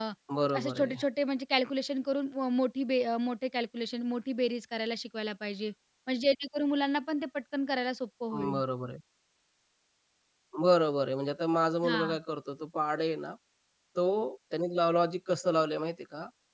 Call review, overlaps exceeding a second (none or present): none